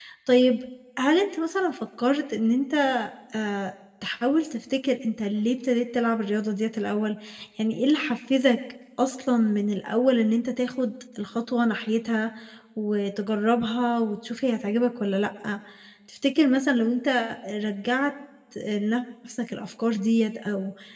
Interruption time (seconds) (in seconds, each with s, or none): none